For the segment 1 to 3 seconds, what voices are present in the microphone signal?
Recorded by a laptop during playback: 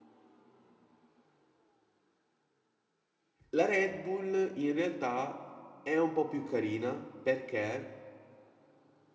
neither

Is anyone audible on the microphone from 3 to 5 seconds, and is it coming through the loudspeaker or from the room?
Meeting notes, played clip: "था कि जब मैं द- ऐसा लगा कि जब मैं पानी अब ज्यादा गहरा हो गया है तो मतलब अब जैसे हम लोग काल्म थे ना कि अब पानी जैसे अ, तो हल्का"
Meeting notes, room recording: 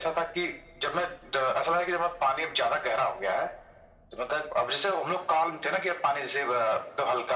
echo only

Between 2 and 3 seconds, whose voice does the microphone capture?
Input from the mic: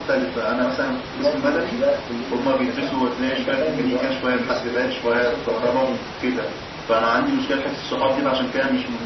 echo only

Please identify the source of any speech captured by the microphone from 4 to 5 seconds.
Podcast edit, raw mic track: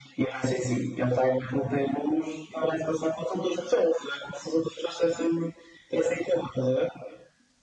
echo only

